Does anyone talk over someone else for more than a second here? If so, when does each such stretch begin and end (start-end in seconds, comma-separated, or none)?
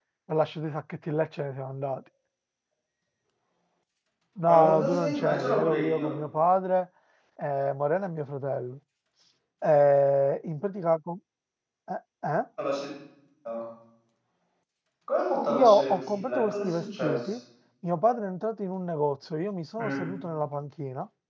4.5-6.1, 15.5-17.3